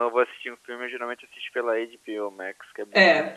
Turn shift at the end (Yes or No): Yes